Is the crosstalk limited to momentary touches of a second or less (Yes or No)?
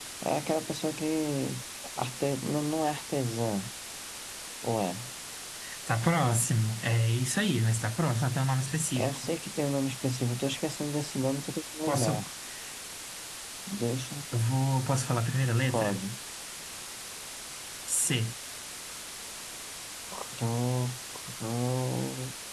Yes